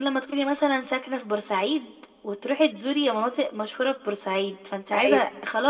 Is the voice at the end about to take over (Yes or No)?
No